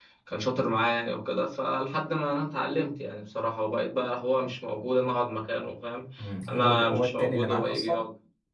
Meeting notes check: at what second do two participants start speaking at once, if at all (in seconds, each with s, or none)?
6.5 s